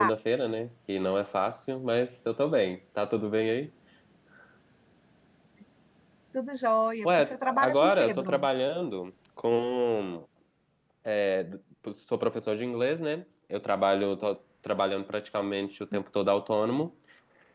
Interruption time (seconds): 7.0 s

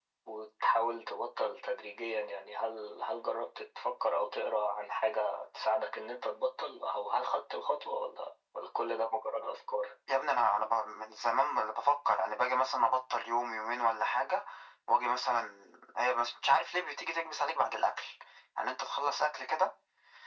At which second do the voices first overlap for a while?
none

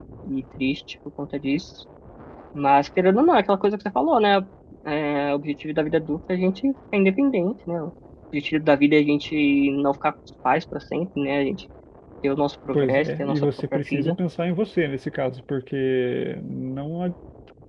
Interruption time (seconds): 12.7 s

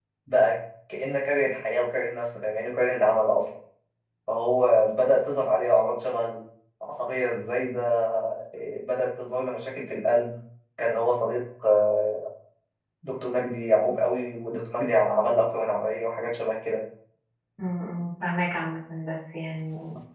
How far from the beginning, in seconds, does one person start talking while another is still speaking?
none

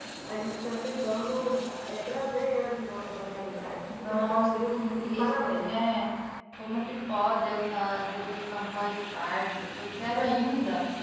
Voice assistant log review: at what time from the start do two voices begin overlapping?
3.9 s

